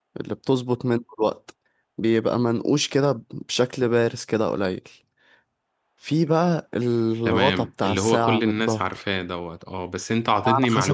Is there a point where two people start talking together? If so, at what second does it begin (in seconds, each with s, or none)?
7.2 s